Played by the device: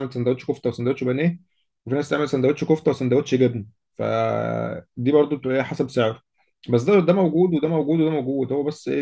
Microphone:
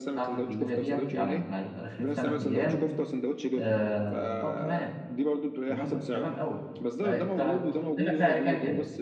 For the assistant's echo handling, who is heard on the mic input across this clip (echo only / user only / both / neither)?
both